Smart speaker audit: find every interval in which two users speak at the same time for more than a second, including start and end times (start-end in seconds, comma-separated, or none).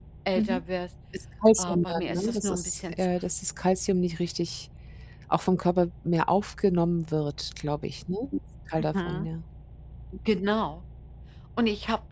1.6-3.1